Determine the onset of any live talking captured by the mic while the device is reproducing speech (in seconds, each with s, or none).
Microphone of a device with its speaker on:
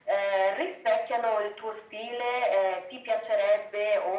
none